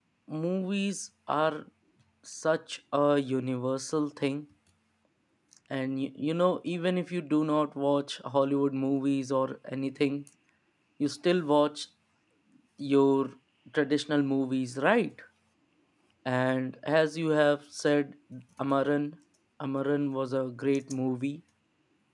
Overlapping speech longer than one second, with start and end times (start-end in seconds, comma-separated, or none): none